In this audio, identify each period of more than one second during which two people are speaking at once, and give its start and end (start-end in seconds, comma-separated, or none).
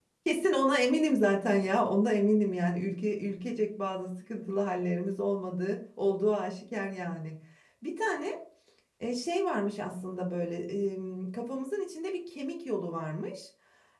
none